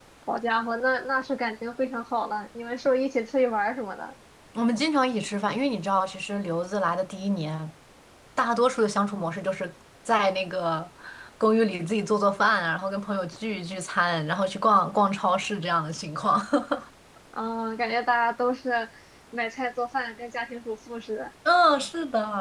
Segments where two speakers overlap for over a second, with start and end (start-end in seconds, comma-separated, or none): none